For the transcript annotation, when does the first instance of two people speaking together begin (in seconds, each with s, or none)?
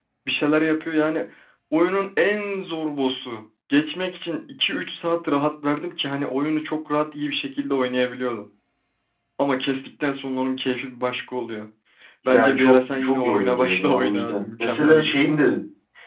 12.3 s